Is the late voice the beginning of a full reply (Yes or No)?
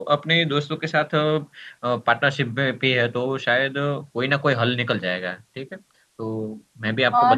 Yes